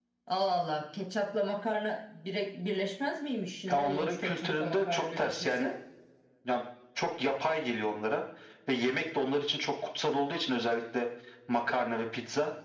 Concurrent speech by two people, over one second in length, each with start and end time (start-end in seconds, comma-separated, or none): 3.7-5.7